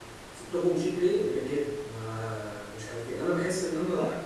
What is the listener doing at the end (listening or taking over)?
listening